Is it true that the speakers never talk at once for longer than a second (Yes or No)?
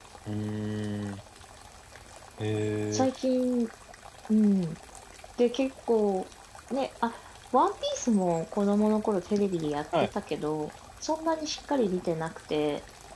Yes